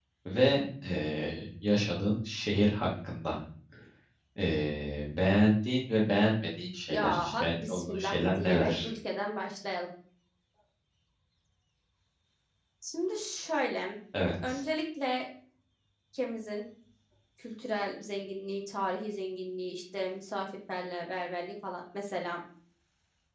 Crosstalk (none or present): present